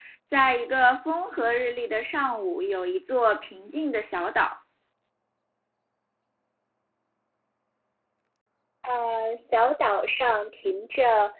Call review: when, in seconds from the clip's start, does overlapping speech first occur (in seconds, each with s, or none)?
none